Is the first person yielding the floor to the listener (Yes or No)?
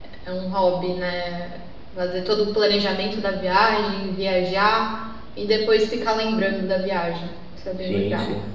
Yes